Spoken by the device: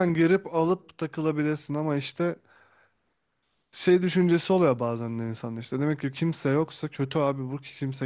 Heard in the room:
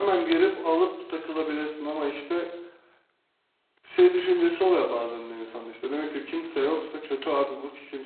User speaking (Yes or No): No